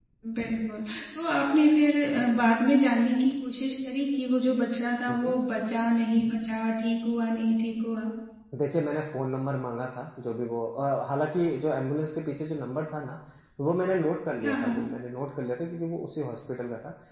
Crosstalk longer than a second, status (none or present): none